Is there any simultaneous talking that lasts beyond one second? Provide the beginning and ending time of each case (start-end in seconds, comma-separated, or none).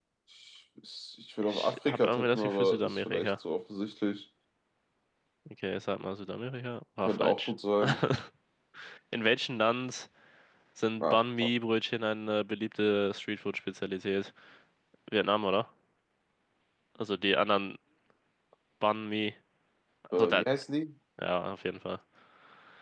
1.4-3.3